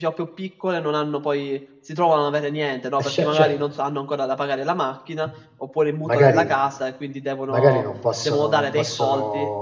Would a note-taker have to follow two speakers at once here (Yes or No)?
Yes